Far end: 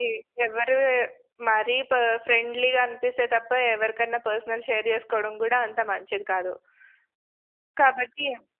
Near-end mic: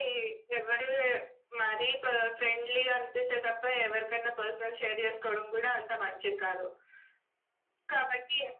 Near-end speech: none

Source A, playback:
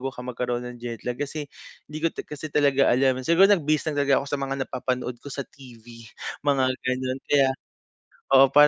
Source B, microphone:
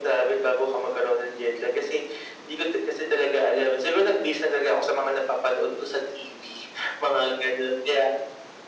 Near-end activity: none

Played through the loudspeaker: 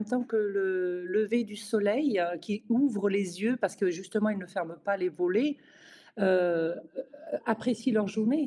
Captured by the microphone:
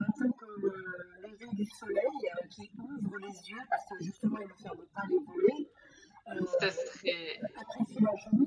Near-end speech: present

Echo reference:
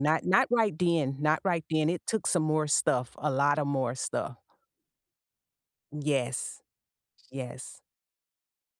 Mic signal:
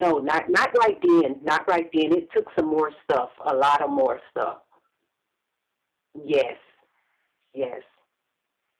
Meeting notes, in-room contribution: none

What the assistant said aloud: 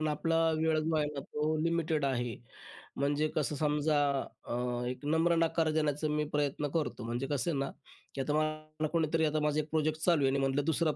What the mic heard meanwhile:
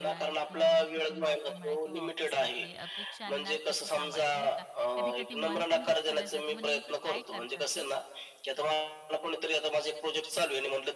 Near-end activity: present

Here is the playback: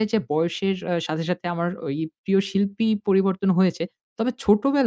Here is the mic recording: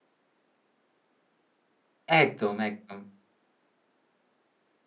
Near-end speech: present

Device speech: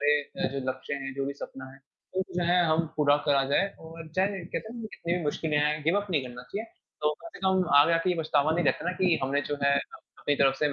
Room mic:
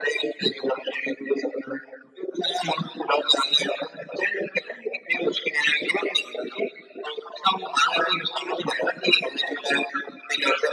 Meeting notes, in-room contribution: none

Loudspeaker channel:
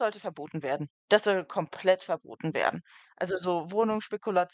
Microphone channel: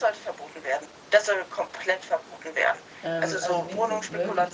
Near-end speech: present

